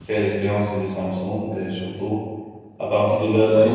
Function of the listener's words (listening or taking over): listening